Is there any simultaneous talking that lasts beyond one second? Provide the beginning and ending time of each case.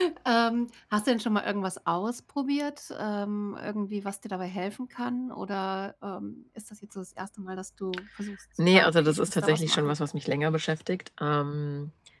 8.7-9.9

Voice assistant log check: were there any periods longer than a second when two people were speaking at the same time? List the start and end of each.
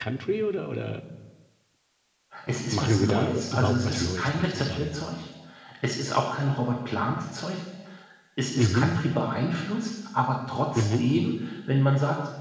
2.7-5.0

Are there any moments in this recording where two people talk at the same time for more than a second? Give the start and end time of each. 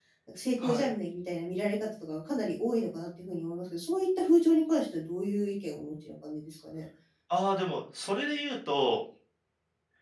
none

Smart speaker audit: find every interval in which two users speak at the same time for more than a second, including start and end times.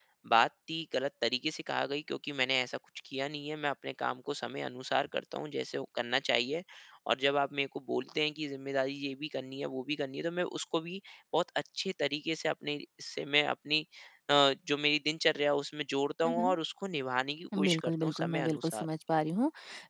17.6-18.8

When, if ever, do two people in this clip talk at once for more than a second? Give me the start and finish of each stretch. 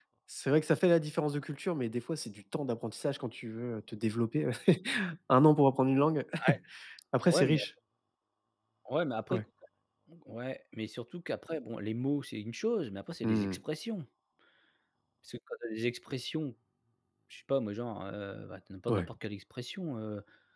none

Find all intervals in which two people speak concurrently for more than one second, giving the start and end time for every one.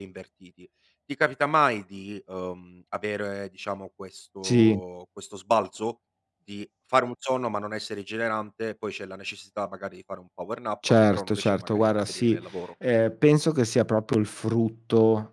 11.1-12.4

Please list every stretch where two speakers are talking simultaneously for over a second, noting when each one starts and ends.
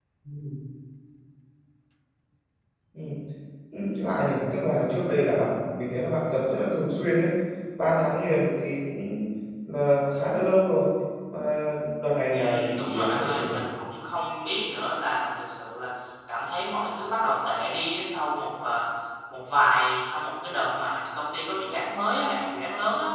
12.3-13.6

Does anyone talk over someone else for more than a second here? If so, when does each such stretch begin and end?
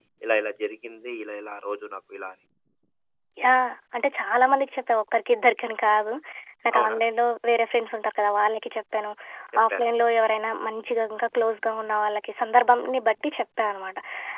none

